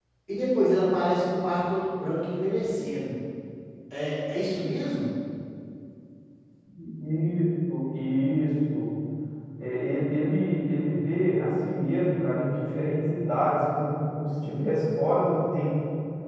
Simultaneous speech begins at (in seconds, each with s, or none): none